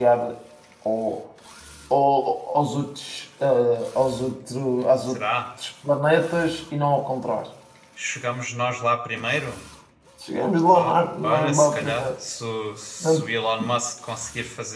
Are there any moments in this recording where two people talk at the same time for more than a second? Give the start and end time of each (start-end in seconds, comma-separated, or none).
10.7-12.1